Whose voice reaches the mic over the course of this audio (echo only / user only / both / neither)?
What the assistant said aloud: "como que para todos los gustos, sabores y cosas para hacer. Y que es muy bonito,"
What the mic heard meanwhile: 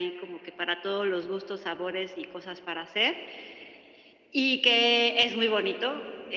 echo only